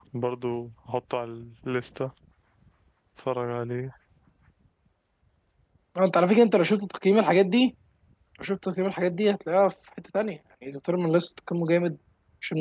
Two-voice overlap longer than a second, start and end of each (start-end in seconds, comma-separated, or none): none